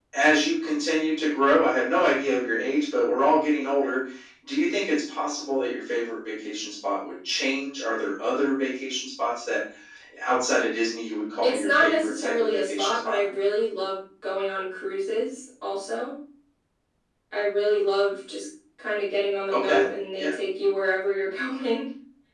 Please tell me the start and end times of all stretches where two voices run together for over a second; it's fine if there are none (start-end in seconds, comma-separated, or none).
11.4-13.2